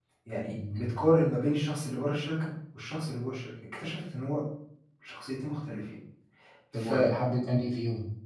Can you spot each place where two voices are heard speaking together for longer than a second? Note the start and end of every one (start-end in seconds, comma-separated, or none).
none